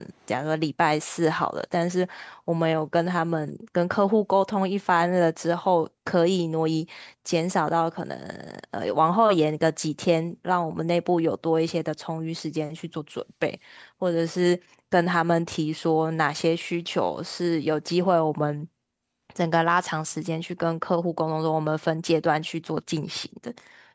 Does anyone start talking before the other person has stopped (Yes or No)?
No